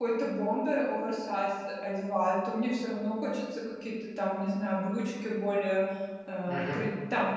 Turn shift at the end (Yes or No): No